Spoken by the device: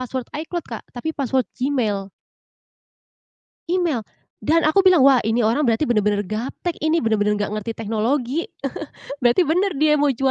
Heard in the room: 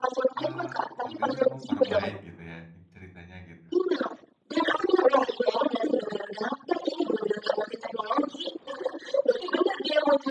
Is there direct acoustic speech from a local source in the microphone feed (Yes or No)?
Yes